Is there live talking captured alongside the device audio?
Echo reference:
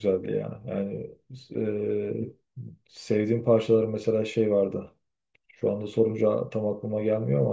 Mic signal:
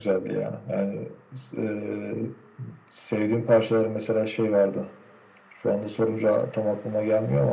No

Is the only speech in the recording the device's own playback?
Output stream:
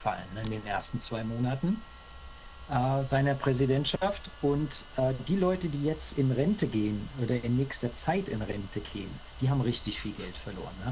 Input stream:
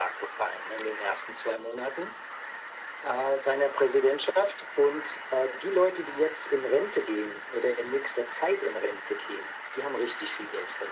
Yes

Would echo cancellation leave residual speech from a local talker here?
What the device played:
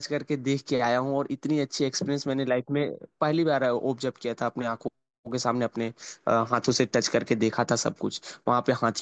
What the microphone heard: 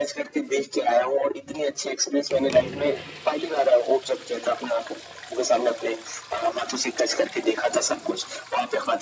No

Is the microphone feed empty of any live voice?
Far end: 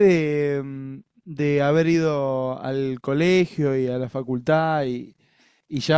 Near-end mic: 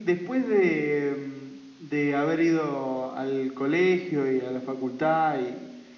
Yes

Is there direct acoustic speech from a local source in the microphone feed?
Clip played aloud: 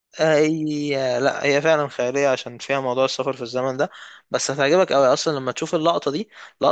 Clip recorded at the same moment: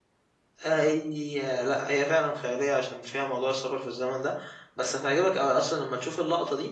No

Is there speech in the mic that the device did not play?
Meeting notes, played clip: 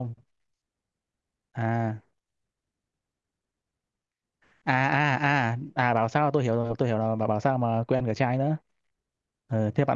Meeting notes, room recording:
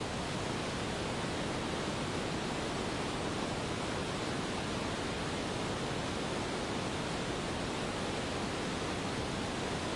No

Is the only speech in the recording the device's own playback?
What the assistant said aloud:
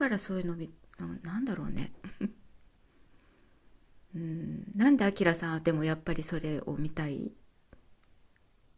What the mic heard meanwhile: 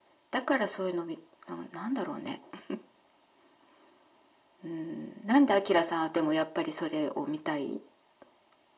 Yes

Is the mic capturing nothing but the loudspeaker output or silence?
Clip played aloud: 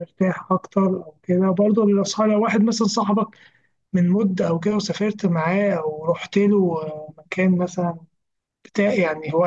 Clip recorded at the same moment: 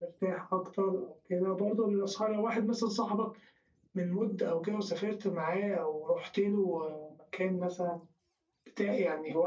Yes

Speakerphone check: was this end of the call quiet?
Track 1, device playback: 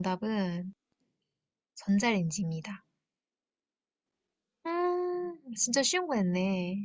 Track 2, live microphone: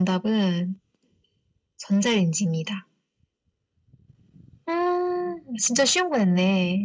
Yes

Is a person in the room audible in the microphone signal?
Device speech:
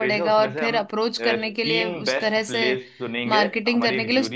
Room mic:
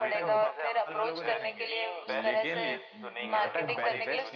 Yes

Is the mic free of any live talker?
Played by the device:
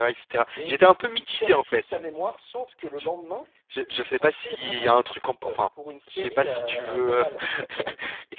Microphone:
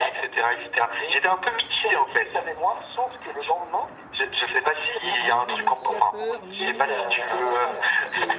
No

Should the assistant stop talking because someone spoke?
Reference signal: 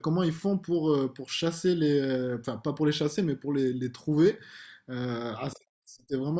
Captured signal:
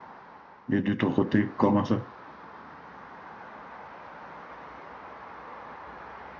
Yes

